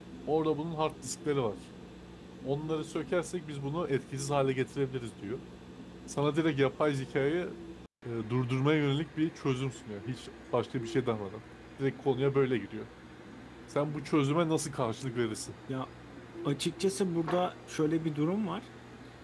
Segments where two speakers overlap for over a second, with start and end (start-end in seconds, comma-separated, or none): none